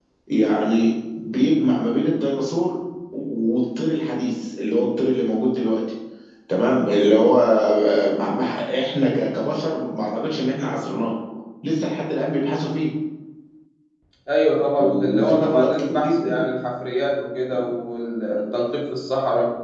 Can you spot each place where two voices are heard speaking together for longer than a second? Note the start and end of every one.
14.8-16.3

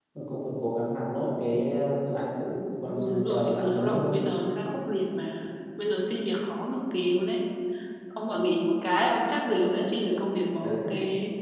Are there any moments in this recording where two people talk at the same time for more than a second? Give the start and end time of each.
3.0-4.3

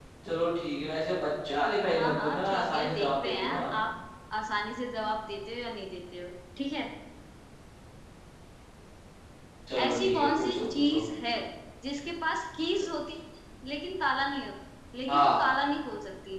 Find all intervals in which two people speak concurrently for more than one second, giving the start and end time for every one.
2.0-3.7, 9.8-11.1

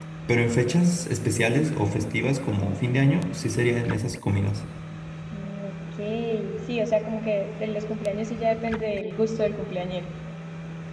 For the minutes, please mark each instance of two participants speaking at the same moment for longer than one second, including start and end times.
none

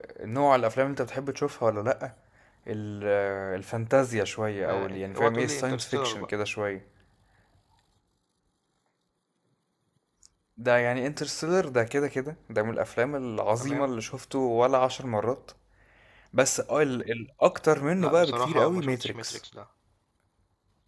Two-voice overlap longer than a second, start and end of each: 4.6-6.3, 18.0-19.4

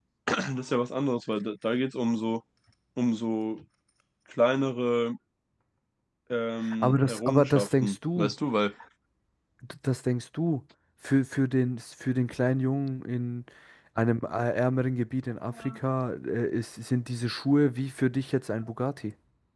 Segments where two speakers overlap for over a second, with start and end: 6.8-8.3

